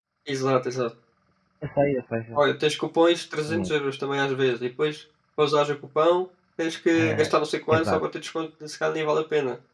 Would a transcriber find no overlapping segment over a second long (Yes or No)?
Yes